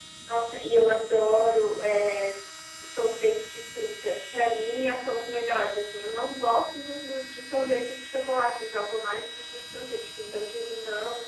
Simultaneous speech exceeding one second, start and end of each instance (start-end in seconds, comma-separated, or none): none